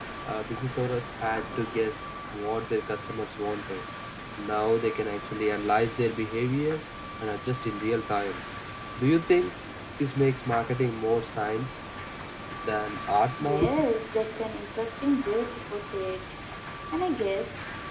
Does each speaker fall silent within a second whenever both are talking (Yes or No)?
Yes